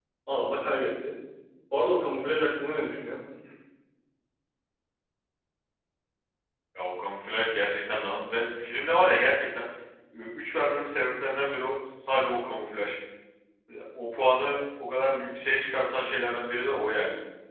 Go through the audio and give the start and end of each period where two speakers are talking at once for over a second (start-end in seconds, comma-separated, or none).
none